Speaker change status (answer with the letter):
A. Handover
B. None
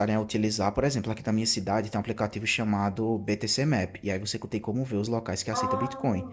B